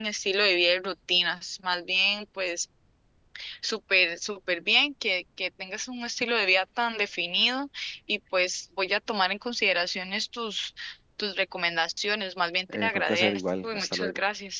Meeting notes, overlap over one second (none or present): present